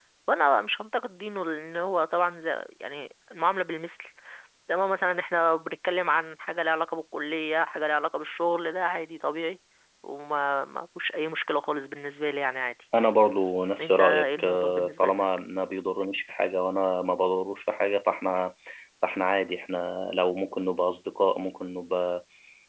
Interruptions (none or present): present